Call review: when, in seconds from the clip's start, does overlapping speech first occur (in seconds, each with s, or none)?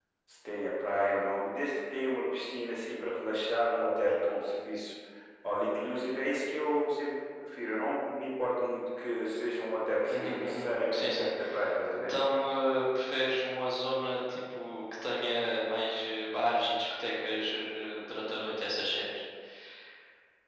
10.1 s